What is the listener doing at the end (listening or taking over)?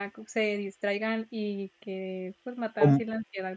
listening